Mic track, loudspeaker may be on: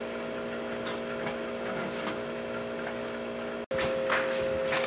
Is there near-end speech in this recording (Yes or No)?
No